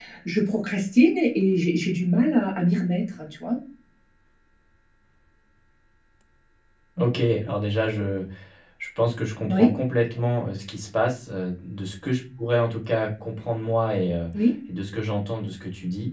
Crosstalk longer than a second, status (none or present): none